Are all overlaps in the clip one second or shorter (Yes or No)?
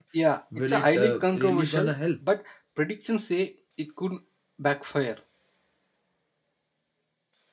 No